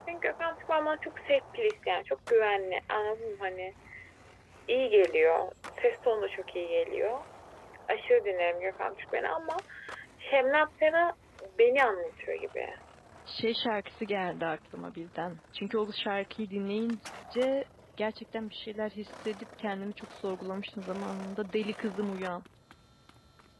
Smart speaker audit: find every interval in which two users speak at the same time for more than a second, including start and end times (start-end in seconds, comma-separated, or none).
none